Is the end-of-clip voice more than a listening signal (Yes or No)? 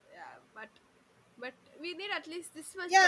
Yes